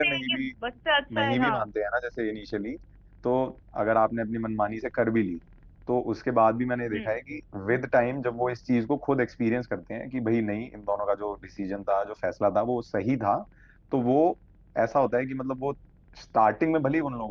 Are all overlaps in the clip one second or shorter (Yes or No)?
Yes